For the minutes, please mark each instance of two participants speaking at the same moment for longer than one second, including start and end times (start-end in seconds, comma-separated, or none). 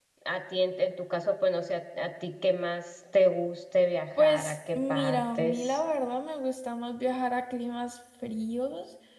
4.2-5.8